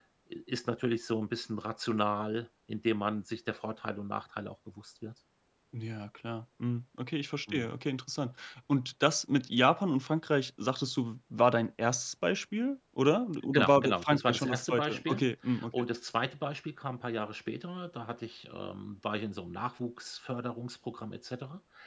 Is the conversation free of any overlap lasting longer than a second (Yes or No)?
No